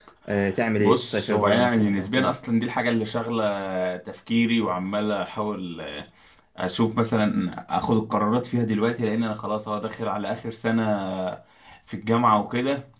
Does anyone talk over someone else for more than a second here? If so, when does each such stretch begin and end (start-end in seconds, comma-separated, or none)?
0.8-2.3